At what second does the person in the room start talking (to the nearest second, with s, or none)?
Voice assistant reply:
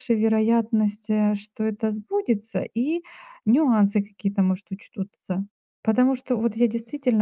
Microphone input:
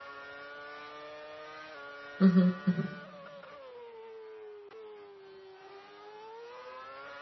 2 s